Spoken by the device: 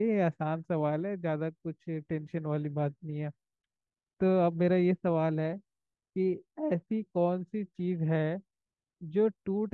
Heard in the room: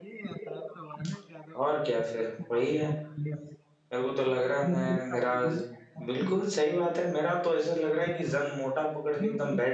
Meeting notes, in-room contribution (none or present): present